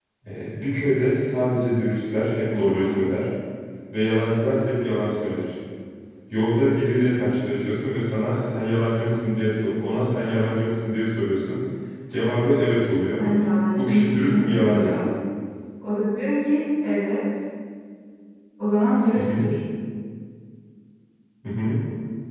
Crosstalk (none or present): present